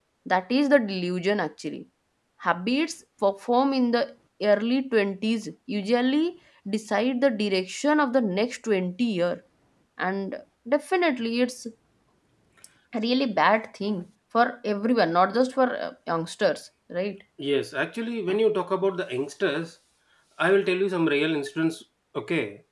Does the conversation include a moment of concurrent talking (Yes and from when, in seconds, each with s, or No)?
No